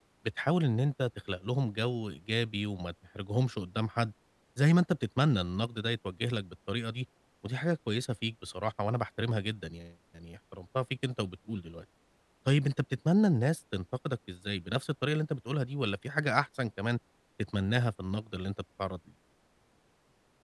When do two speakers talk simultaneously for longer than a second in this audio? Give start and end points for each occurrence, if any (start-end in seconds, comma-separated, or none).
none